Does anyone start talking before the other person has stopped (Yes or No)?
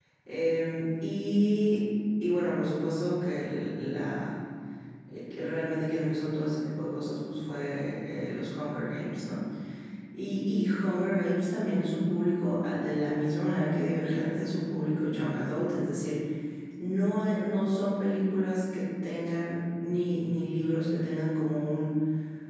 No